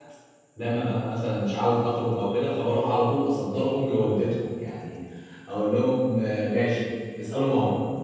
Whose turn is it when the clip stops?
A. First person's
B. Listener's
A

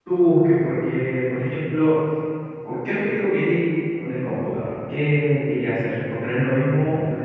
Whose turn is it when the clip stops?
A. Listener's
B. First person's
B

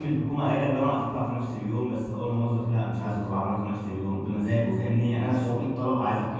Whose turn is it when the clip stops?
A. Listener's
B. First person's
B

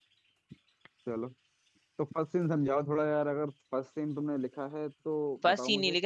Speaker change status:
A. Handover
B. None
A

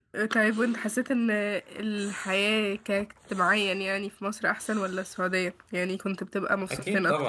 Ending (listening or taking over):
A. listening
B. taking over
B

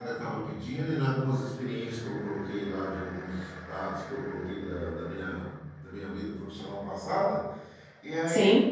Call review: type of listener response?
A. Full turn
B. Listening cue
B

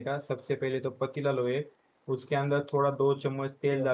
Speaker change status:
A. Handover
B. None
B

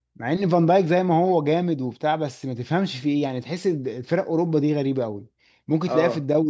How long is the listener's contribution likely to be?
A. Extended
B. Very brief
B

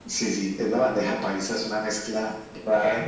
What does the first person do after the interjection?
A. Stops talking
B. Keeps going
B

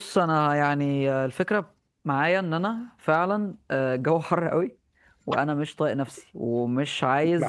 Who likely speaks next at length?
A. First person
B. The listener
A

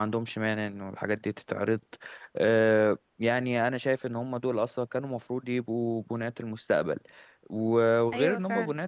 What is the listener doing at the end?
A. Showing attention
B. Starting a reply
A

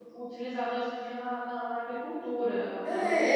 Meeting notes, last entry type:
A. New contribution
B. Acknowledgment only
A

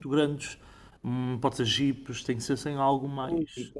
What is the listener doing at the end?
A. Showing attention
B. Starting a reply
B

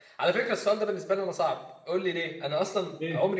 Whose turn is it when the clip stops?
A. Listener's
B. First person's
B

